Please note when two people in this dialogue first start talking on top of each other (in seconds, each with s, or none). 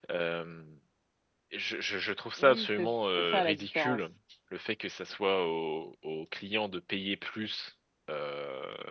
2.4 s